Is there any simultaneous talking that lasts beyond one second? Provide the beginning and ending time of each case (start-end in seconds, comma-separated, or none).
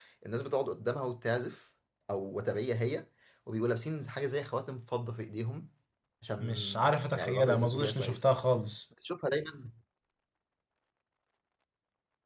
6.4-8.3